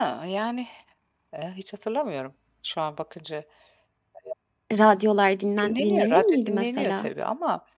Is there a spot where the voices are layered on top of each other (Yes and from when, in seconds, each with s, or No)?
Yes, from 5.6 s